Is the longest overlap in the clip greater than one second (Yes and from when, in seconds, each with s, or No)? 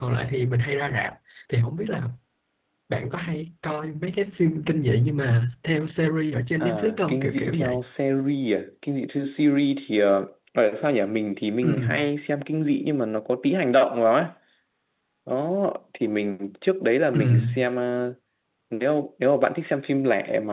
Yes, from 6.6 s